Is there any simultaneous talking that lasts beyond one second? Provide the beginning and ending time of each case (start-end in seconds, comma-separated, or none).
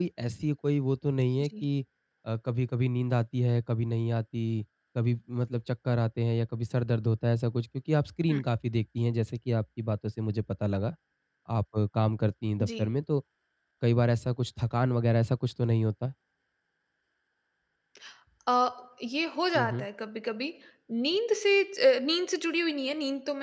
none